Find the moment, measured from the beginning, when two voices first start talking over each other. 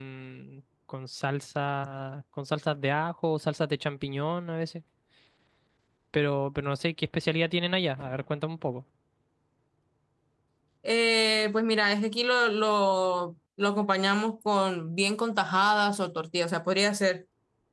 none

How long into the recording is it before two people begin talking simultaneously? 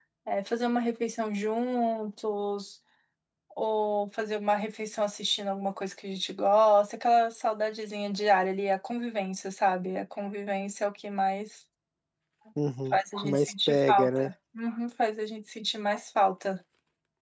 12.9 s

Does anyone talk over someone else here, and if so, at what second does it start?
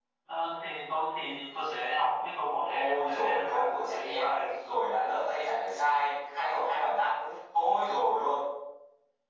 2.7 s

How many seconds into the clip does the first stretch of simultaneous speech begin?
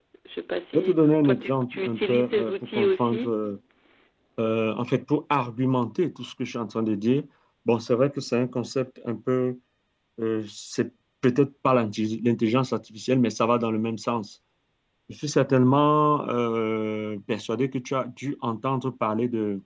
0.7 s

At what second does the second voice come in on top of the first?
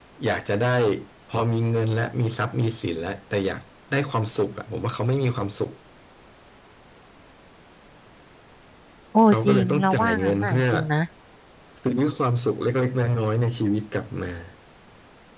9.3 s

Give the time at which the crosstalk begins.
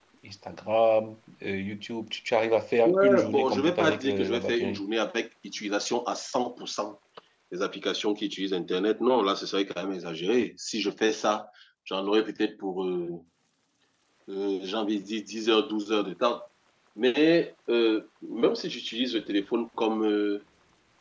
2.8 s

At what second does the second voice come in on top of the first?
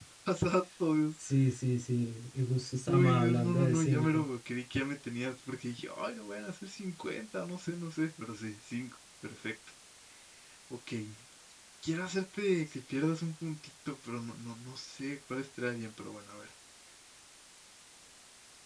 2.9 s

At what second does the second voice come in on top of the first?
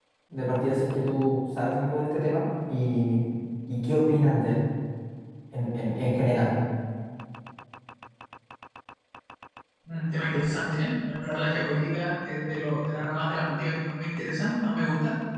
none

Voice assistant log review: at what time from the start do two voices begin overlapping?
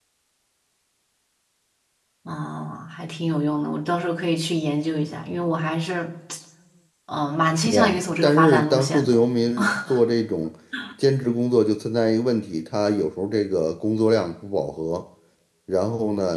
7.5 s

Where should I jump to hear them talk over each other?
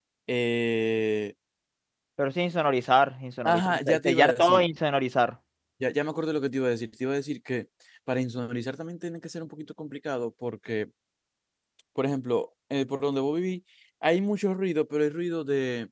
3.5 s

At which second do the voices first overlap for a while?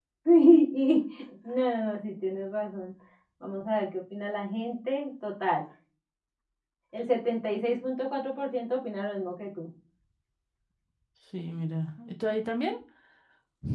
none

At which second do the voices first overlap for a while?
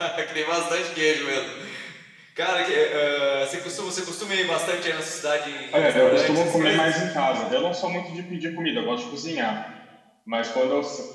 5.7 s

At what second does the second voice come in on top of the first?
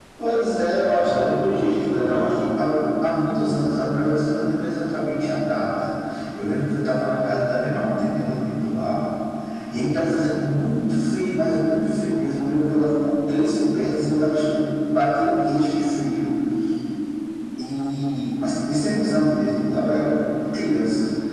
1.0 s

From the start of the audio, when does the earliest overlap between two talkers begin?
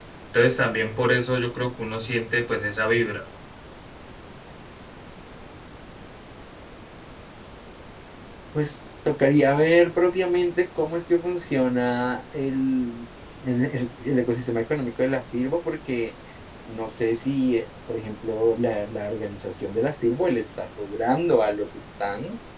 none

